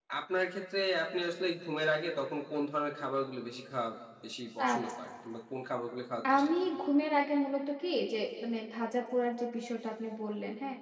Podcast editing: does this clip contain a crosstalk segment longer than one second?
No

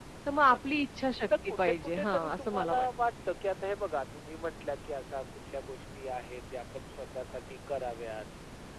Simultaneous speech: Yes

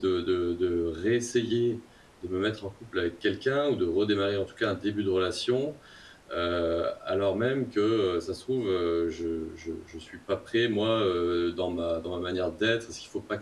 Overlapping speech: No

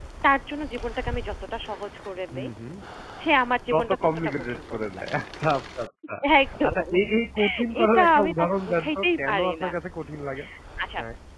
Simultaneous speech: Yes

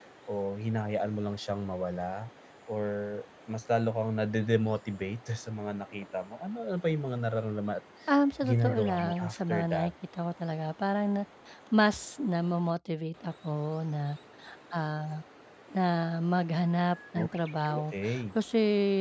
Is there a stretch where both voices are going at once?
Yes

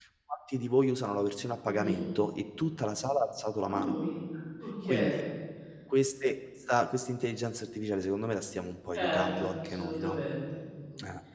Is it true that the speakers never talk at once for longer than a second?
No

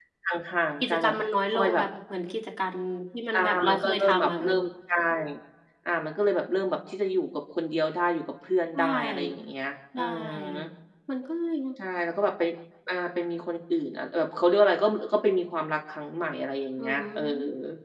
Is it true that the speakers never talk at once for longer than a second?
No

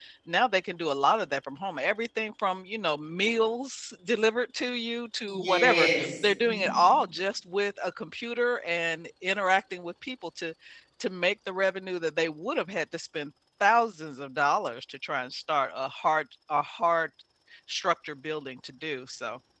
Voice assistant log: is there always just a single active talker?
No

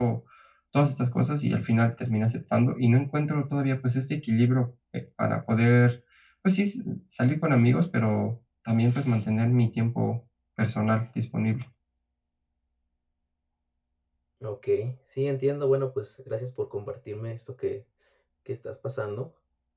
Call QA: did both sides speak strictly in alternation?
Yes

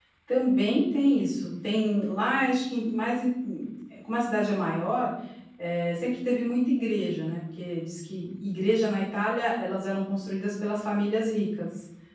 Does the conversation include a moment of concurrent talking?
No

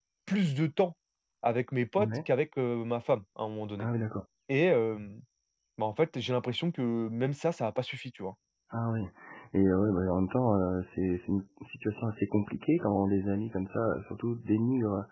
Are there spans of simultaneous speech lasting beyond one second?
No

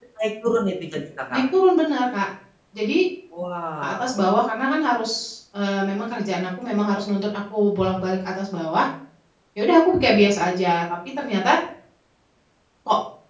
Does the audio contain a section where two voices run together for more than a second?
No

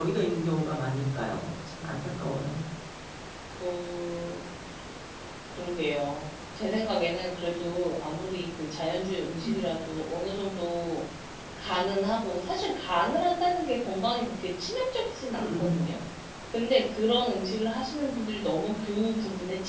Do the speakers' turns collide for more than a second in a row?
No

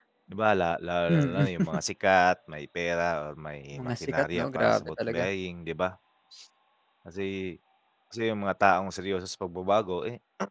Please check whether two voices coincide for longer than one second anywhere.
Yes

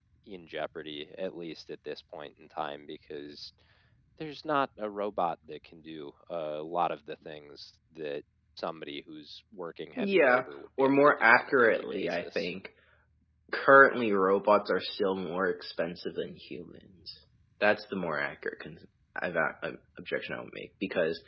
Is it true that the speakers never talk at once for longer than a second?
No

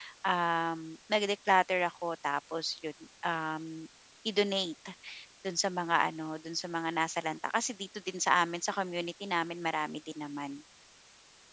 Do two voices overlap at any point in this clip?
No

